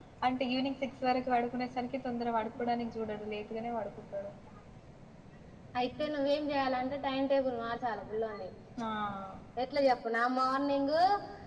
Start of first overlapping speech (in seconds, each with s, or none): none